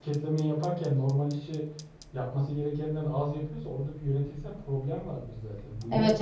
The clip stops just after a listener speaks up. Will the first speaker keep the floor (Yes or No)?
No